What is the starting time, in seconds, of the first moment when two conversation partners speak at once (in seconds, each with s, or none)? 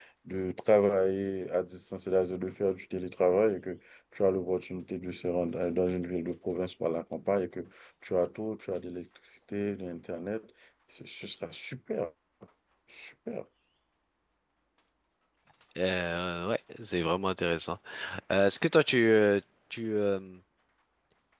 none